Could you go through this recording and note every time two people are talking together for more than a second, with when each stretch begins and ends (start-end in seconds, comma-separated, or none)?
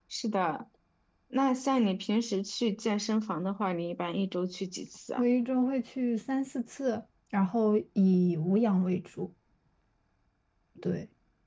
none